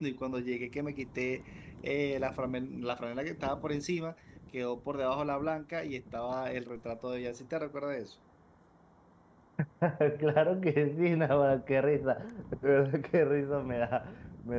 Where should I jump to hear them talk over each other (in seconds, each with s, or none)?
none